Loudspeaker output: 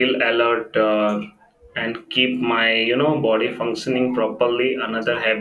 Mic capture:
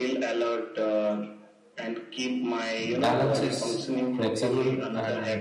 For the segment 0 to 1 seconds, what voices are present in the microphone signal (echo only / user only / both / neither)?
echo only